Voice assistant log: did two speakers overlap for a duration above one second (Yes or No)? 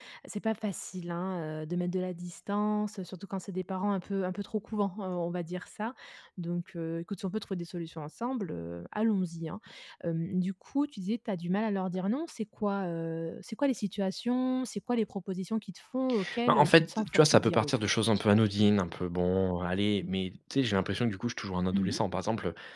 Yes